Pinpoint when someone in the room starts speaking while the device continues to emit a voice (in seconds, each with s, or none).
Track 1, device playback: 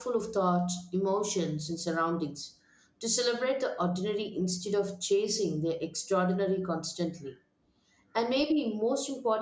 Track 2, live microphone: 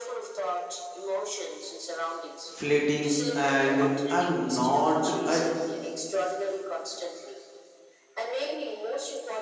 2.5 s